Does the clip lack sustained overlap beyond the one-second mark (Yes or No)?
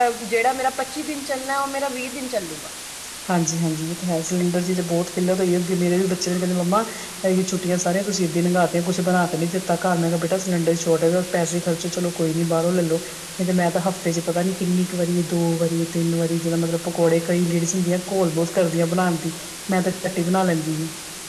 Yes